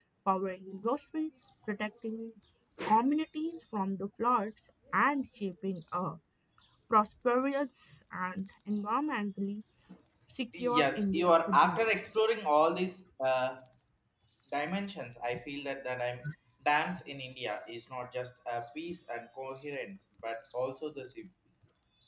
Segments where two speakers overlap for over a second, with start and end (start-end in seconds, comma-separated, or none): 10.6-11.9